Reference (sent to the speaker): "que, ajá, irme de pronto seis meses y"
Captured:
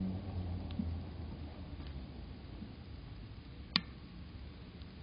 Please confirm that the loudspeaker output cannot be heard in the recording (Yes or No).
Yes